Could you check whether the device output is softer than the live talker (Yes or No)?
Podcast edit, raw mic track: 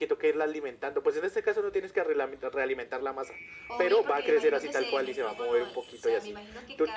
No